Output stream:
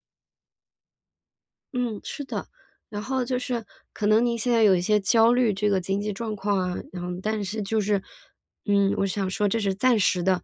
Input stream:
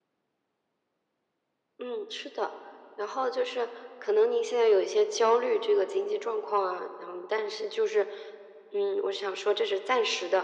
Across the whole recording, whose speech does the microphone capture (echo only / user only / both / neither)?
echo only